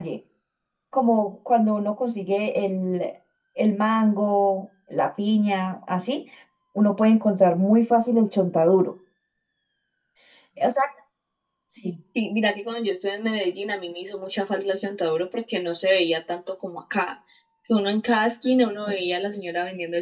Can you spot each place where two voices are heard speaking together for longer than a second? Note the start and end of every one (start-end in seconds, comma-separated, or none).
none